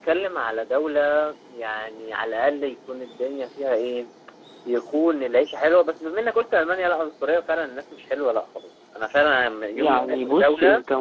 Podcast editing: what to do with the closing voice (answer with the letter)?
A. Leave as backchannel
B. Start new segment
B